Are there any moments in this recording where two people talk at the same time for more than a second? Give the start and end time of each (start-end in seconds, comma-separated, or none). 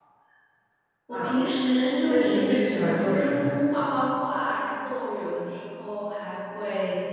2.1-3.5